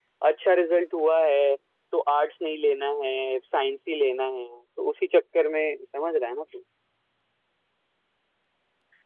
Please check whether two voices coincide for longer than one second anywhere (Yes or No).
No